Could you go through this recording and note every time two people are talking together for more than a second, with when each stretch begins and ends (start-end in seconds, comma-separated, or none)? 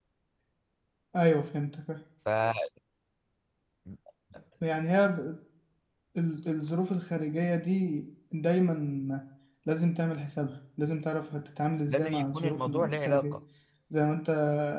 12.1-13.4